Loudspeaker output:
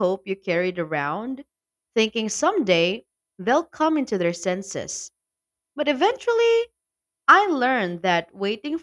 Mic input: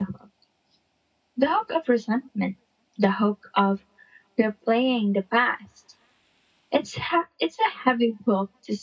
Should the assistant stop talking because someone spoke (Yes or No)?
Yes